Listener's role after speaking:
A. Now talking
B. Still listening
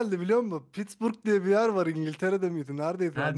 B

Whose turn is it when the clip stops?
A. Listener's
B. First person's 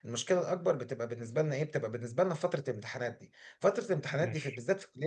B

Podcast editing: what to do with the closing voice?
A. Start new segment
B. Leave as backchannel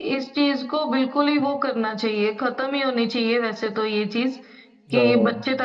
B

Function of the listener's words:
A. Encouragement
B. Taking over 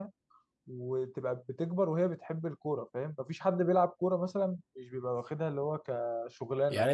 B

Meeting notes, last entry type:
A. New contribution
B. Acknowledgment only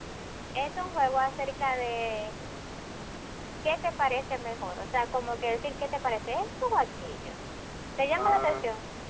A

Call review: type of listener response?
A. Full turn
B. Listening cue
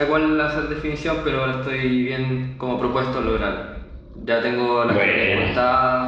B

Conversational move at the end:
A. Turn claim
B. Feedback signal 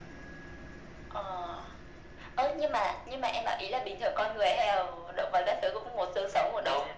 A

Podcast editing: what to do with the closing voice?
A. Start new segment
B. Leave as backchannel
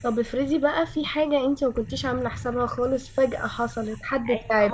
A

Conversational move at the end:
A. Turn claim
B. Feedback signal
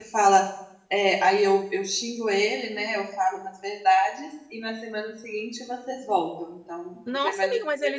A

